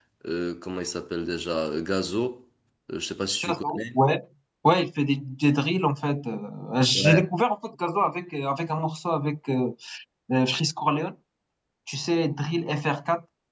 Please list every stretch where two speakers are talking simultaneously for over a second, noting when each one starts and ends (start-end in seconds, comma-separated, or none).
none